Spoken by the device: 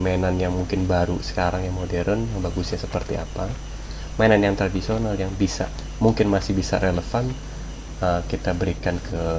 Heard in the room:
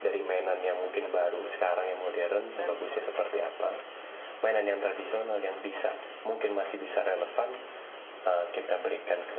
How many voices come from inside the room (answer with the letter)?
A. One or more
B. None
A